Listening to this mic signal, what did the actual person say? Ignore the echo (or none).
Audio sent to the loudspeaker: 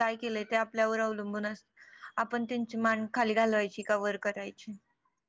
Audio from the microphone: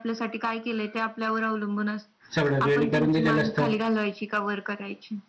सगळं रेडी करून दिलेलं असतं